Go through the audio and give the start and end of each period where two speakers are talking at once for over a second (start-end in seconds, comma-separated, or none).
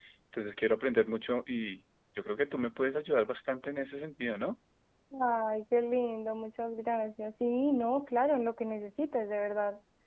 none